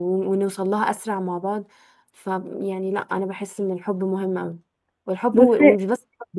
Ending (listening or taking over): listening